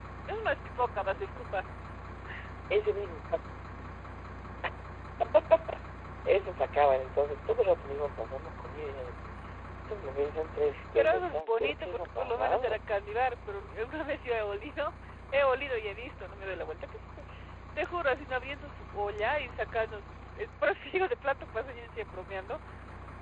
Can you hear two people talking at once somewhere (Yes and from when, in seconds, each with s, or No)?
Yes, from 11.0 s